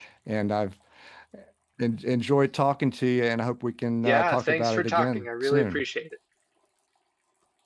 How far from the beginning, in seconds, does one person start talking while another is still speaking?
4 s

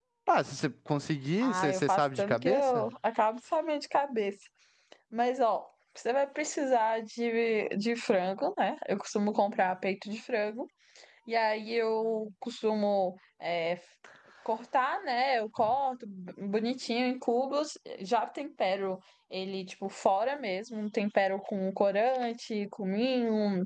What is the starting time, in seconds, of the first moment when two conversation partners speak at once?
1 s

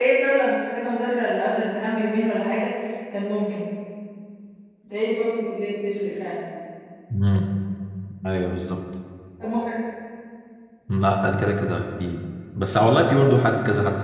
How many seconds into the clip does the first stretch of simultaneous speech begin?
none

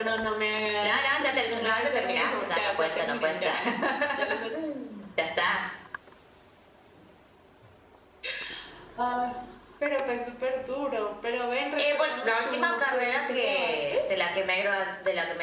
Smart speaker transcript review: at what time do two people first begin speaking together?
1 s

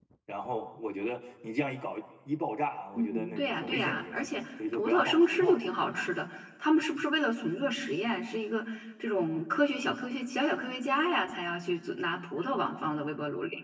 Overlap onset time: 3 s

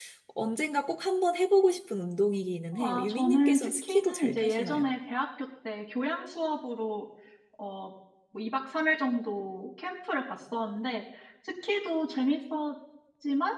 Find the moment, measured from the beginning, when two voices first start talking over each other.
3 s

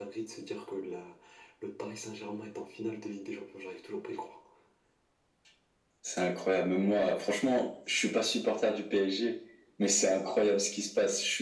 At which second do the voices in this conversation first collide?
none

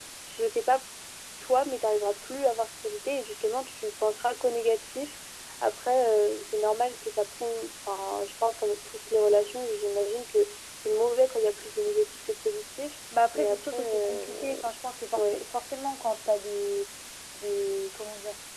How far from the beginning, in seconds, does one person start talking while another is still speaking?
13 s

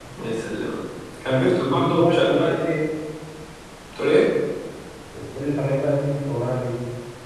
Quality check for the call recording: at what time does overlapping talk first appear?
1 s

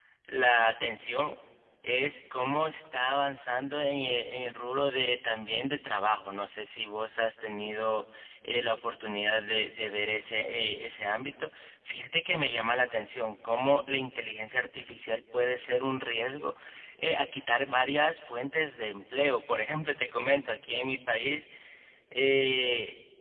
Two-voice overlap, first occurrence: none

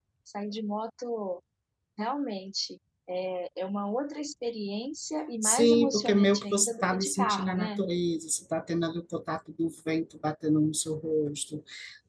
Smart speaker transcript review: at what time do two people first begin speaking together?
5 s

